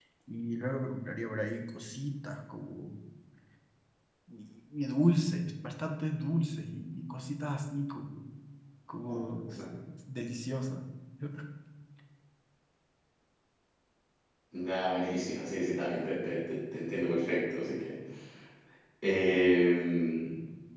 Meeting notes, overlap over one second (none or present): none